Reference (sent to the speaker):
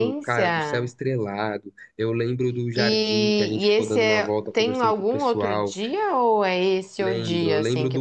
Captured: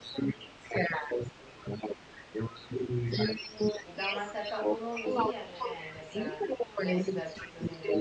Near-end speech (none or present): present